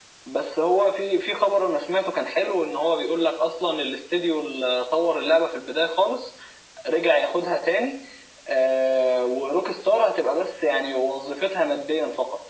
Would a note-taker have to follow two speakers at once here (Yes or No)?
No